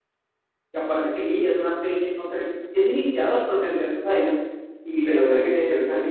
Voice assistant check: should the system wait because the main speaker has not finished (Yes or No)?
No